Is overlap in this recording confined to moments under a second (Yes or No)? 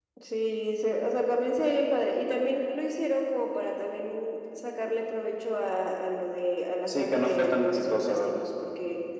No